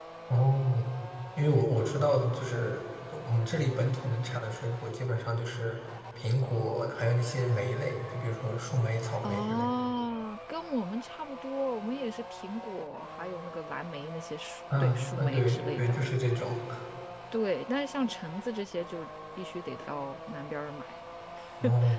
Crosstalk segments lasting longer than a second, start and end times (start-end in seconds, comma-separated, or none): 14.8-16.0